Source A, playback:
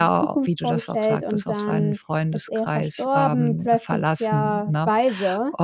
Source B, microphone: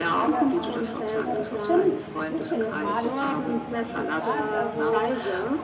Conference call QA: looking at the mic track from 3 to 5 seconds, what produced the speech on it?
both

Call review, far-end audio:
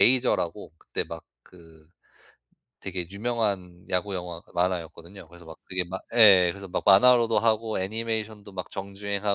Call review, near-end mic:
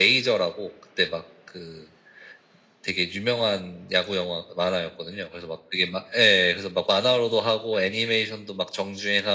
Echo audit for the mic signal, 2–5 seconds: echo only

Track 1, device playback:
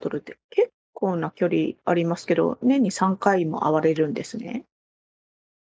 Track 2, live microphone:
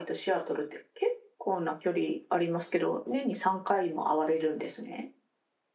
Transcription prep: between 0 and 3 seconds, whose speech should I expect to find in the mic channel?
echo only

